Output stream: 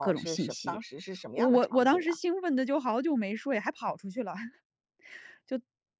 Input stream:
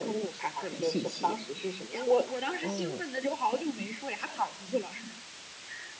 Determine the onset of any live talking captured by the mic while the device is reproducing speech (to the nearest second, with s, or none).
3 s